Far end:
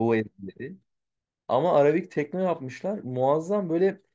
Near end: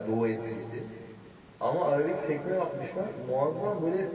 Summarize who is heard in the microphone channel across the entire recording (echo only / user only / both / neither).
echo only